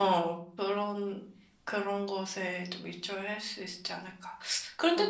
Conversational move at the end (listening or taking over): listening